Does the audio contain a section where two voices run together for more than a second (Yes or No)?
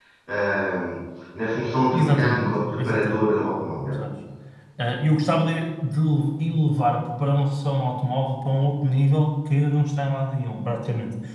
Yes